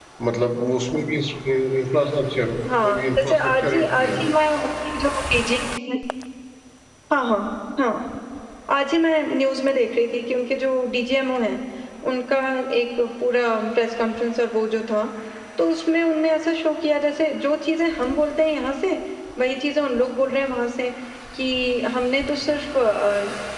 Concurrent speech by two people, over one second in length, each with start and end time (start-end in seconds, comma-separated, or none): 2.8-4.2